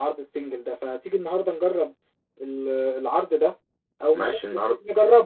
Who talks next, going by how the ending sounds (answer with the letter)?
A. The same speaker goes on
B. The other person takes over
A